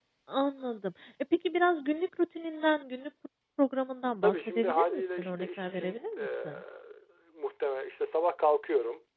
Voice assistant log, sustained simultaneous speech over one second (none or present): present